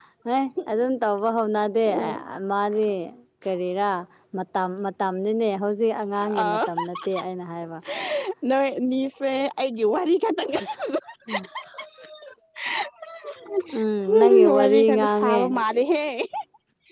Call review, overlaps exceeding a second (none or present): present